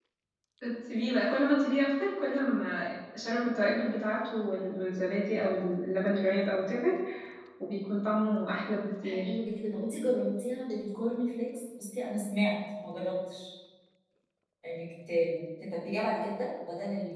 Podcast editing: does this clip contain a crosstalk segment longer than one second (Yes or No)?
No